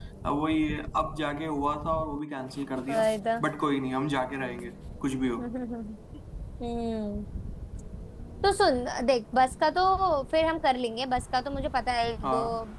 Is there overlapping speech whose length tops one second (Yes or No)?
No